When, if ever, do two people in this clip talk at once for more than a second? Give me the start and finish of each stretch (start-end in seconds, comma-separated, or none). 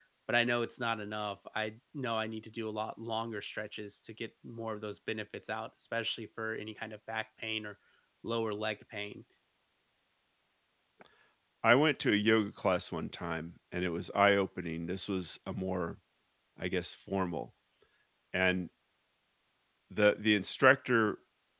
none